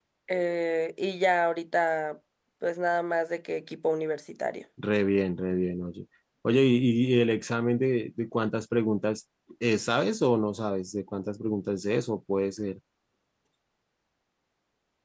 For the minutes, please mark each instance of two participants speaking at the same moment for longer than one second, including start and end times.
none

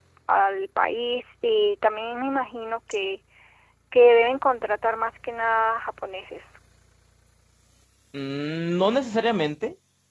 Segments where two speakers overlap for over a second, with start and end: none

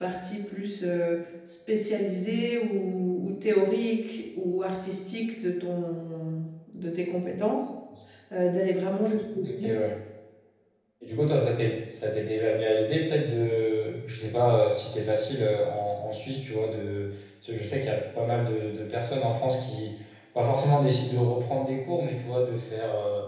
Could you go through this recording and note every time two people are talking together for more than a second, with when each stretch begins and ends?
none

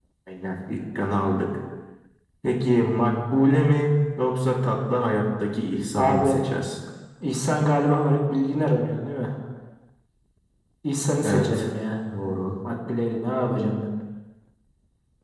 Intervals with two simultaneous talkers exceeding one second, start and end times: none

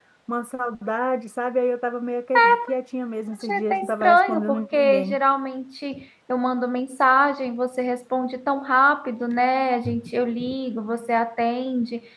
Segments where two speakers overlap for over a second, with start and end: 3.4-5.2

